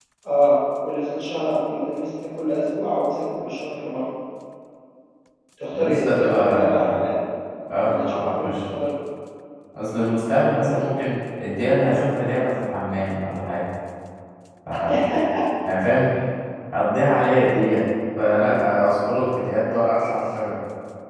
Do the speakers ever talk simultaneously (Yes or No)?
Yes